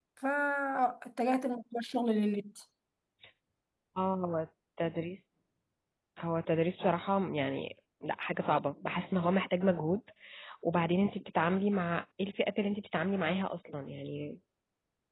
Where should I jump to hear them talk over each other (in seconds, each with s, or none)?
none